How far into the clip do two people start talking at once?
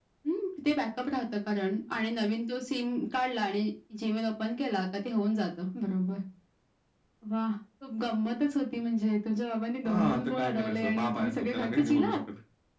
9.8 s

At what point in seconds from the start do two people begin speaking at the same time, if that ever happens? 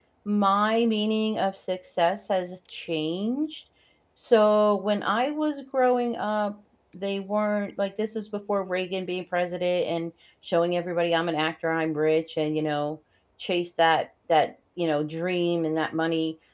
none

